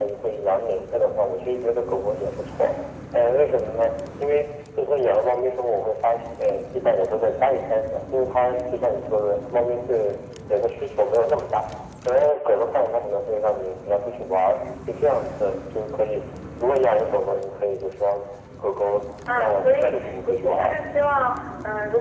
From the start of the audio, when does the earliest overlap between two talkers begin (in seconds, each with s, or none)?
19.3 s